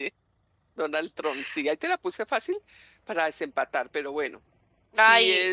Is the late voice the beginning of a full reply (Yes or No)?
No